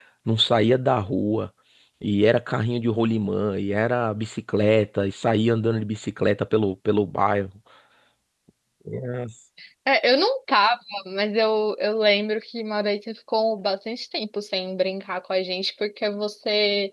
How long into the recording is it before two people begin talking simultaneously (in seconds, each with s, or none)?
none